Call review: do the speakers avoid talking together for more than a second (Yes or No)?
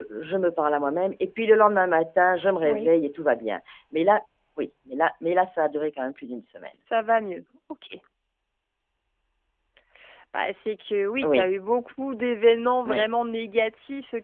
Yes